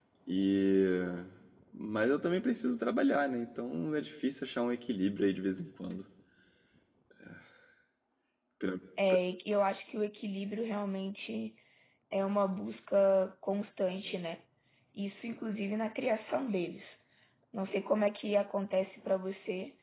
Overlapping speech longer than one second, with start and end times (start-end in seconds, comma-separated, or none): none